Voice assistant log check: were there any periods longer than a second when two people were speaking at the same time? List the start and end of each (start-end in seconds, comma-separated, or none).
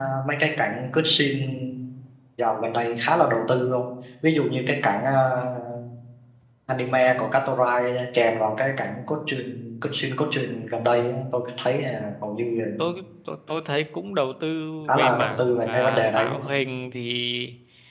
14.9-16.4